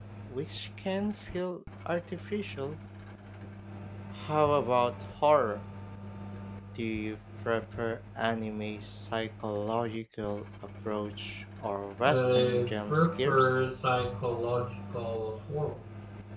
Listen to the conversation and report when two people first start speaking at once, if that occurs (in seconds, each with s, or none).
12.0 s